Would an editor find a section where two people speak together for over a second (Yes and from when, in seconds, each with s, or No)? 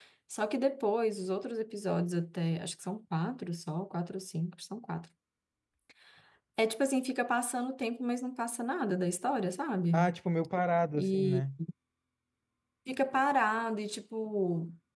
No